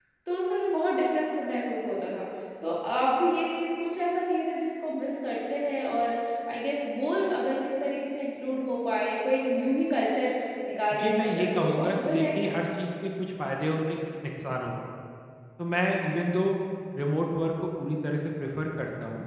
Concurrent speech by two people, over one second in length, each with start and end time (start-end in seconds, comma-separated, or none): 11.0-12.5